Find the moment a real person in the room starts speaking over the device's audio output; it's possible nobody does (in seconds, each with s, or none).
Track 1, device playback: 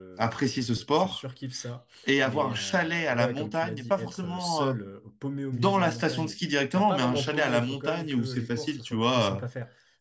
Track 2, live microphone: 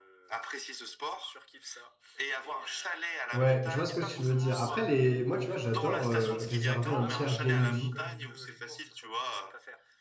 3.3 s